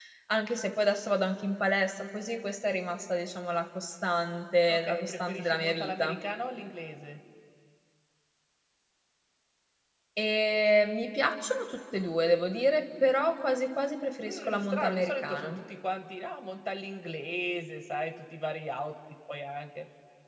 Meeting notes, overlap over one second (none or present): present